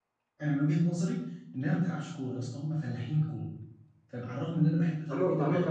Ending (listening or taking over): taking over